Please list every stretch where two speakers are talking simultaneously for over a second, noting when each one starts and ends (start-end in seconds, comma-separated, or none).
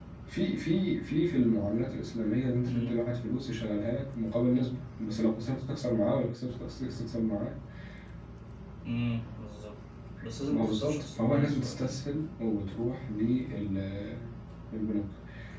10.5-12.0